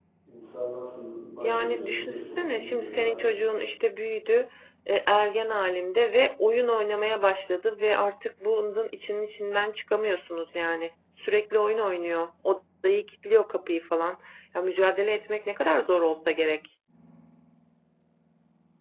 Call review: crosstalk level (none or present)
present